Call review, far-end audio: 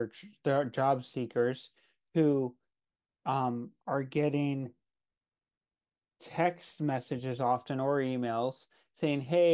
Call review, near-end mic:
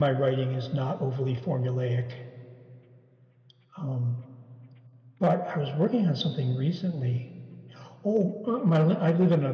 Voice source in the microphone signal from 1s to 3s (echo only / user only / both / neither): user only